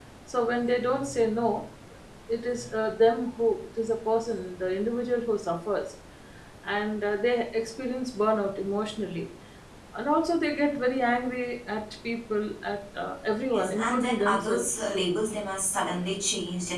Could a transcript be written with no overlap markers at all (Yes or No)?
No